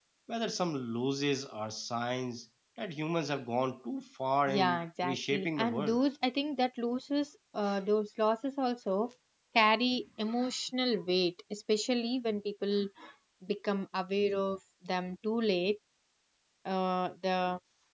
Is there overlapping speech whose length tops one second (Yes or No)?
Yes